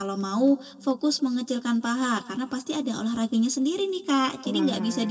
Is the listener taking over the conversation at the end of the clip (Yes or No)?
No